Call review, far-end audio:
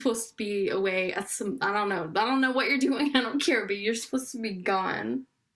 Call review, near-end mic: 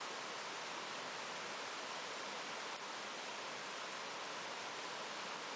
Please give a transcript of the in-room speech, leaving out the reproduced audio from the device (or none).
none